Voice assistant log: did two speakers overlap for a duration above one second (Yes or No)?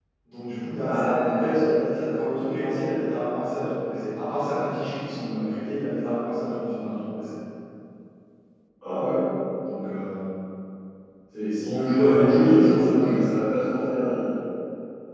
Yes